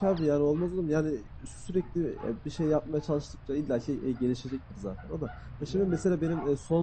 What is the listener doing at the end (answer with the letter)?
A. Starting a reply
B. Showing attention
B